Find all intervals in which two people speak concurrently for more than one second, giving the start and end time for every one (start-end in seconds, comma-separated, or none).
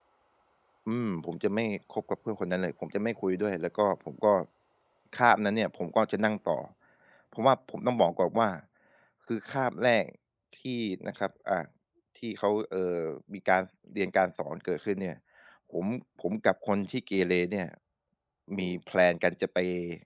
none